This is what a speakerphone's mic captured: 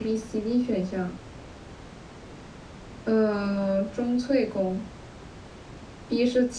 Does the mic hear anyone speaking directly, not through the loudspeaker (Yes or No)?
Yes